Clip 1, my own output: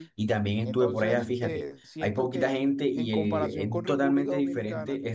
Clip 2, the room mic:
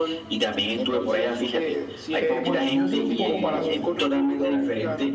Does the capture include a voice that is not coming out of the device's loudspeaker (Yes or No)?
Yes